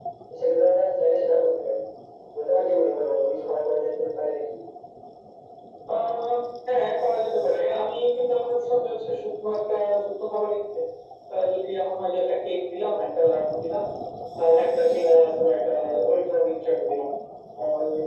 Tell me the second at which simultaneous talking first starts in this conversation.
none

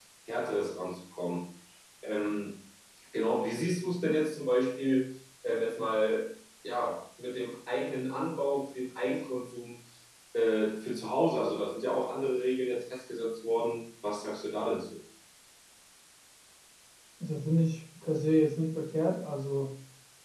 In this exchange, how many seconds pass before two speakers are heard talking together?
none

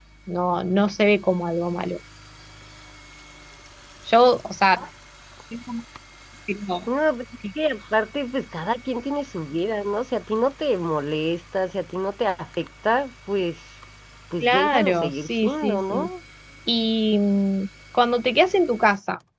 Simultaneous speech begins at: 14.4 s

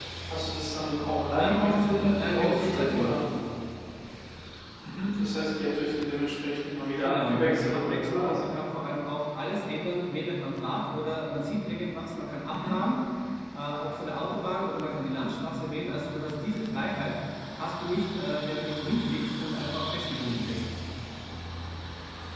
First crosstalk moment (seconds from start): 1.3 s

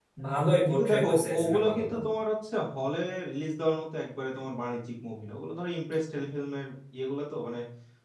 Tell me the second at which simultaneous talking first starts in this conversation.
0.7 s

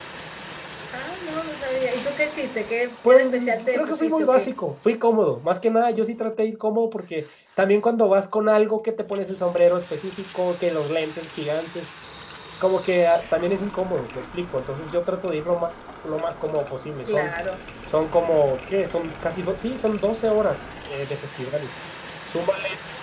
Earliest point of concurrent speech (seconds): 3.1 s

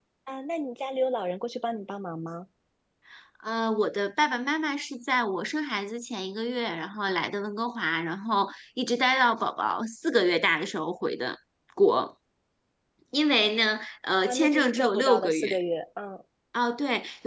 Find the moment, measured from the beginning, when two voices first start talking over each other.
14.2 s

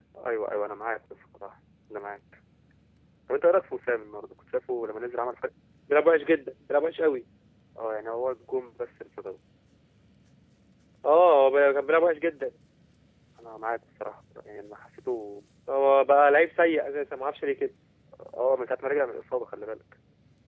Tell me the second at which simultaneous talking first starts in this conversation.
none

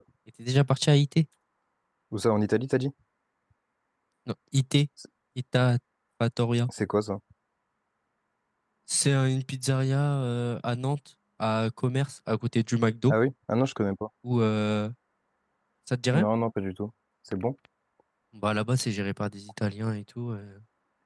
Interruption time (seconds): none

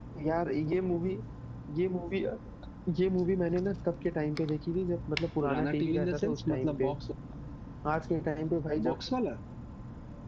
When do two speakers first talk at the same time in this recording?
5.4 s

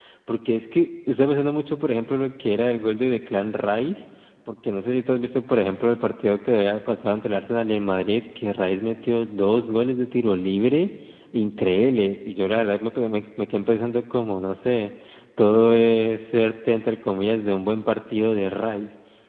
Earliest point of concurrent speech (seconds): none

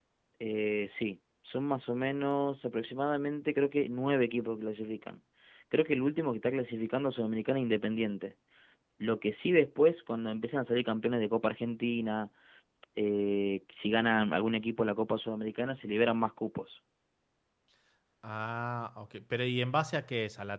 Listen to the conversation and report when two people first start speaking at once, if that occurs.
none

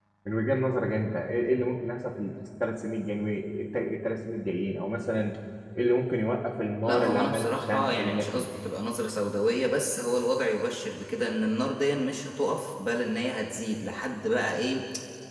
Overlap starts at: 6.8 s

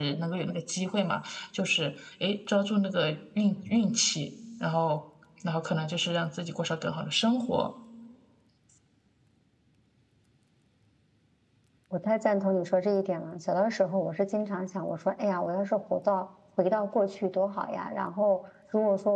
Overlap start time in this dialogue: none

